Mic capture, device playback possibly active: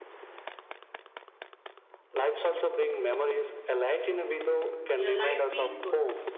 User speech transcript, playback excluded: uh, light feels good.

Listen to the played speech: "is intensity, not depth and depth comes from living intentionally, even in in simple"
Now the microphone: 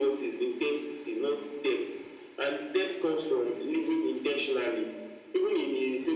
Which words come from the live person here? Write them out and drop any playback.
none

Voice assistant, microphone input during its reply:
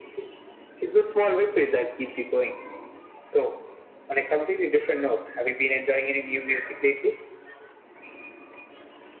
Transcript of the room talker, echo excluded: none

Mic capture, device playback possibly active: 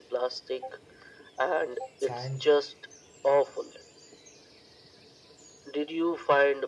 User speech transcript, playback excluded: signed

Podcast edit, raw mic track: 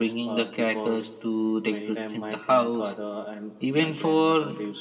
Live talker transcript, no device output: none

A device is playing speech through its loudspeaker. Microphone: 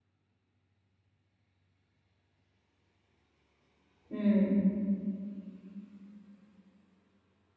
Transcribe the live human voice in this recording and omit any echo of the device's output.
mm.

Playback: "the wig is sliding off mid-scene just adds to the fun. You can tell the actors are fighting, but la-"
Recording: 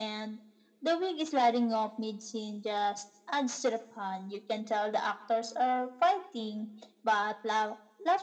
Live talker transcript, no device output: none

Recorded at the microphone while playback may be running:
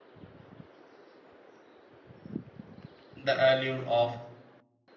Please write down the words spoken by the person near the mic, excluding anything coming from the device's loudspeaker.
The allure of

